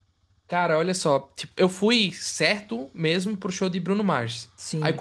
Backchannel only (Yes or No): Yes